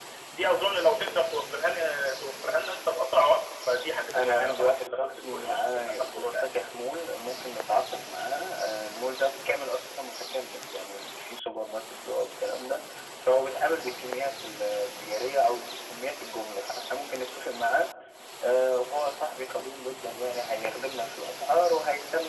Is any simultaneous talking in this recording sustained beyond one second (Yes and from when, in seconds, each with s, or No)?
Yes, from 4.1 s